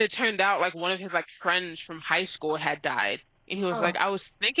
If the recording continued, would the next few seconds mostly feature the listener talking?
No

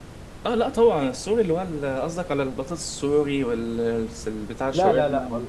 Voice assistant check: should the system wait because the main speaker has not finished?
No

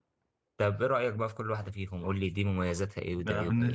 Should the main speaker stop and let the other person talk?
Yes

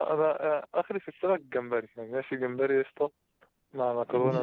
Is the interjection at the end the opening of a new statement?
No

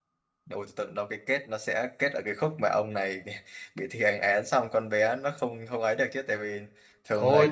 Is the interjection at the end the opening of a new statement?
Yes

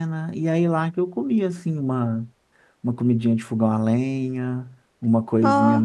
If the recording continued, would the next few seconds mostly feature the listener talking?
No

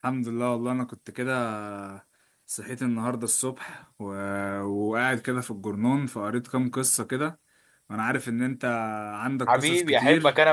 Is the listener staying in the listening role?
No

